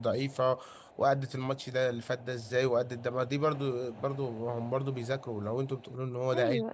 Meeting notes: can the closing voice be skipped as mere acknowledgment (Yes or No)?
No